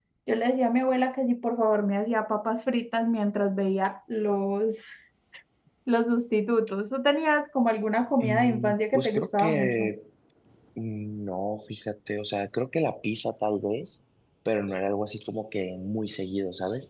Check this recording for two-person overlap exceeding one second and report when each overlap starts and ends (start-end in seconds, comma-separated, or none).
8.2-9.9